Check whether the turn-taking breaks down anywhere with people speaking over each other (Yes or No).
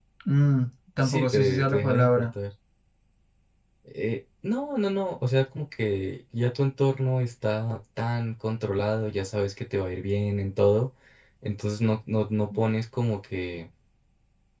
Yes